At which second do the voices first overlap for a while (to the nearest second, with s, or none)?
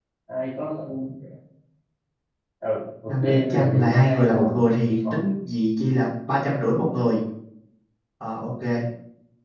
3 s